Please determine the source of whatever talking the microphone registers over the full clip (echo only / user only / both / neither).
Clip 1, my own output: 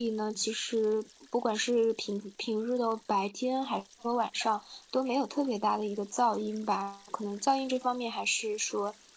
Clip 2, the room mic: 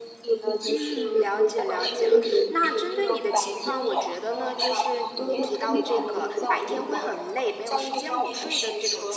both